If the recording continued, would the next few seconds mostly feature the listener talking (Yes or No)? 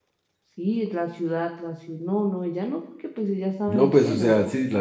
Yes